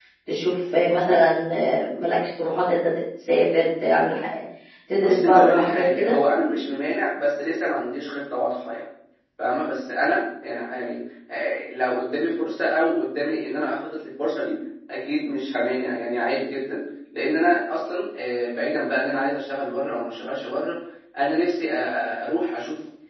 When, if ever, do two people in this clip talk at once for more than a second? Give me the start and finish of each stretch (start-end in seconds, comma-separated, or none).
4.9-6.1